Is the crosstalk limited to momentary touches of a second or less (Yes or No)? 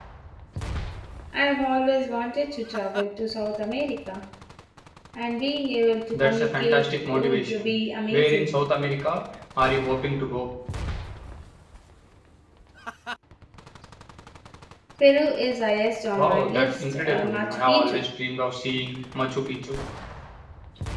No